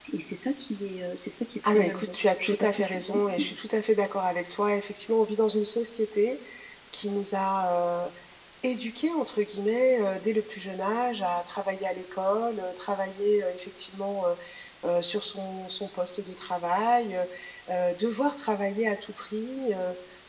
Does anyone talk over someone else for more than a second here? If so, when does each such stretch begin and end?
1.7-3.6

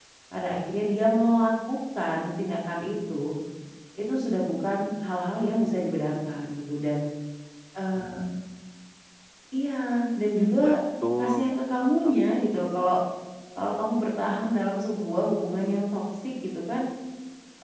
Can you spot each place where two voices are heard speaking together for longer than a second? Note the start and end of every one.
11.2-12.5

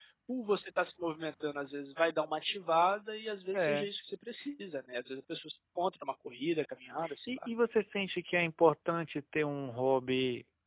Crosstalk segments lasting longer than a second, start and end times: none

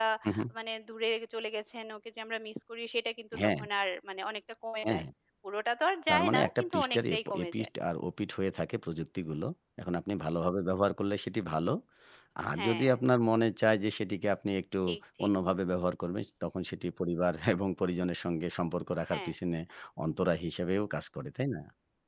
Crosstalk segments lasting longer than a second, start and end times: 6.1-7.7

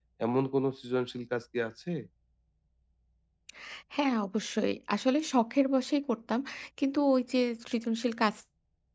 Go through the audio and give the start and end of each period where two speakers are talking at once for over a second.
none

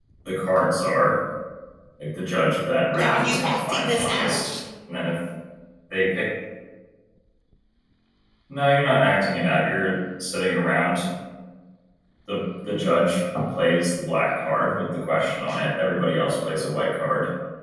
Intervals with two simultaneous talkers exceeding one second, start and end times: 2.9-4.6

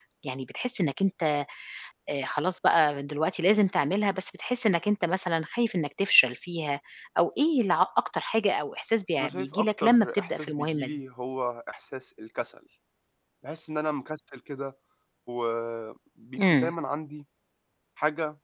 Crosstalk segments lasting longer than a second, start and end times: 9.2-11.0

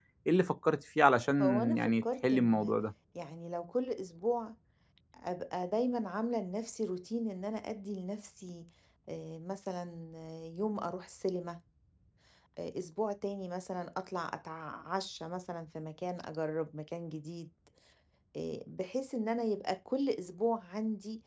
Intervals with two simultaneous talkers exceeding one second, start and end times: 1.4-2.7

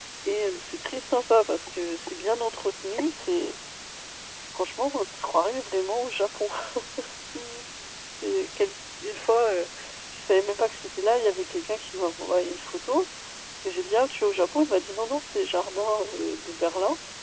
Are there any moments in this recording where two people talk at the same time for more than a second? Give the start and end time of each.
none

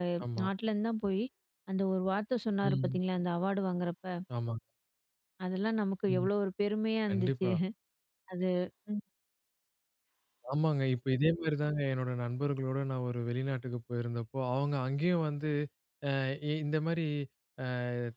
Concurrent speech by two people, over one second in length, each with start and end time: none

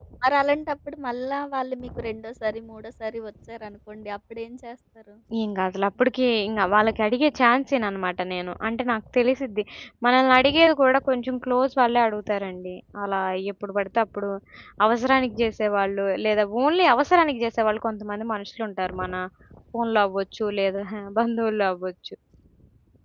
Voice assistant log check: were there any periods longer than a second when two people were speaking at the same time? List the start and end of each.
none

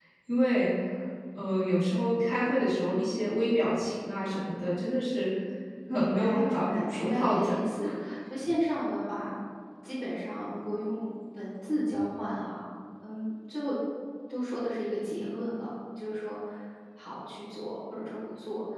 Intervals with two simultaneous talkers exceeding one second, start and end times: 5.9-7.5

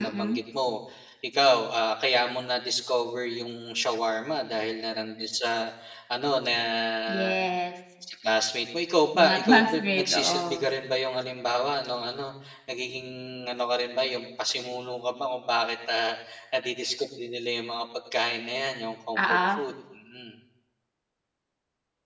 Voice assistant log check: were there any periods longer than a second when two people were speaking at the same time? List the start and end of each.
9.2-10.7

